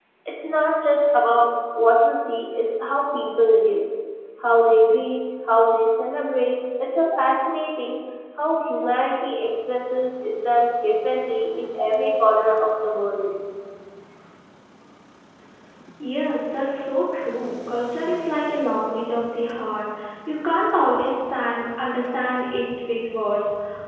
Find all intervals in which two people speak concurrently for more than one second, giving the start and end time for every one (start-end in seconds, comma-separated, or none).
none